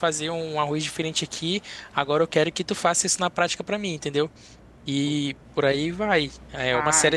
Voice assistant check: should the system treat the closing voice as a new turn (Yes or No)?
No